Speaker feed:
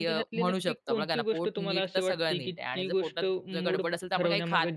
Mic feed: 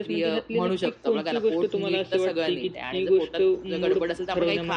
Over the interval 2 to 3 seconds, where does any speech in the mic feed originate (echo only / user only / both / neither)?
echo only